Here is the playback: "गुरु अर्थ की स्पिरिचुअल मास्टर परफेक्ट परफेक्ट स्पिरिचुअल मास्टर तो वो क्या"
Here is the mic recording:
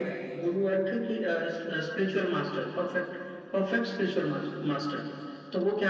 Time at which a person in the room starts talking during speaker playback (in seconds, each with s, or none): none